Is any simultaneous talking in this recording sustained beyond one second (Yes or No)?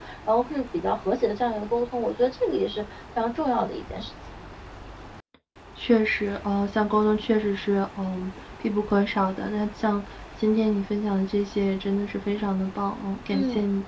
No